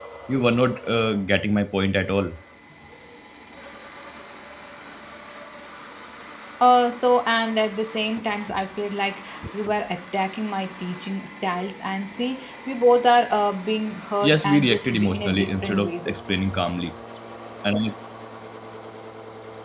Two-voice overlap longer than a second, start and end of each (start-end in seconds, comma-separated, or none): 14.2-15.9